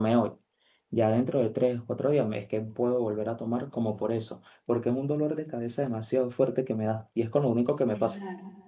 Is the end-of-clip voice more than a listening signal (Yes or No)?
Yes